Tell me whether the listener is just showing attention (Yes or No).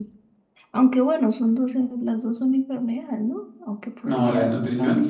No